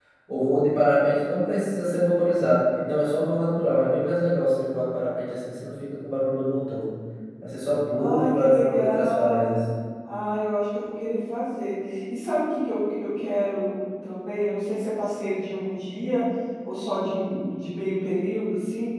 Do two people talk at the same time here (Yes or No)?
Yes